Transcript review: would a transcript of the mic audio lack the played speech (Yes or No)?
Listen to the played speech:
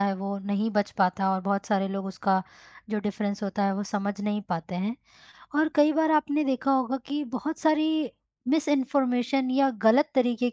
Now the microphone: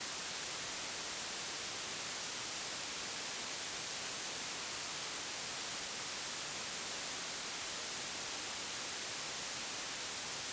Yes